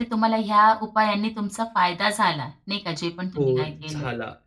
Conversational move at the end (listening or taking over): taking over